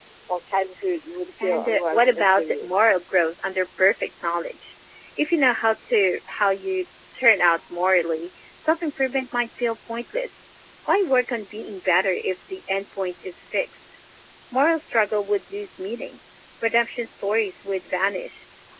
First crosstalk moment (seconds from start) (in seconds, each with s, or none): 1.4 s